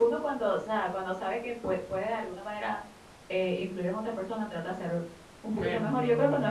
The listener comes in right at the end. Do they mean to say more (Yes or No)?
No